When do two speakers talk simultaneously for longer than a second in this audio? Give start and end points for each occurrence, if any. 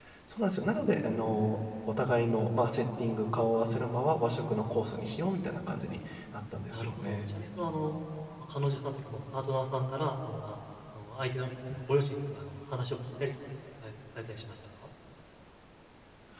none

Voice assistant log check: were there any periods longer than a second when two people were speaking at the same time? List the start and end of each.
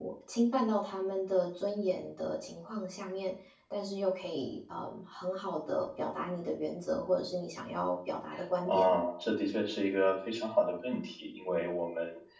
none

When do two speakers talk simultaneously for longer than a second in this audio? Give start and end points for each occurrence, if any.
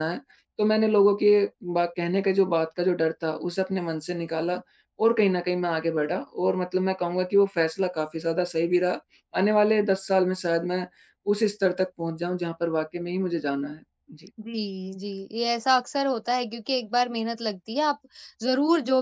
none

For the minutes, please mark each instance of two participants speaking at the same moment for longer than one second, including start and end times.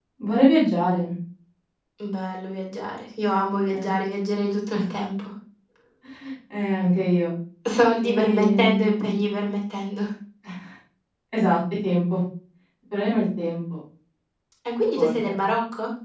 8.0-9.2

